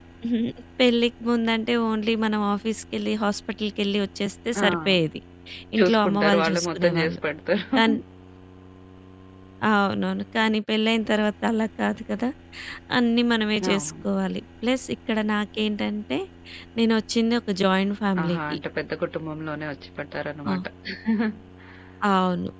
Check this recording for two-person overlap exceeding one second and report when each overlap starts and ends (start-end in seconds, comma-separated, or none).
5.8-7.2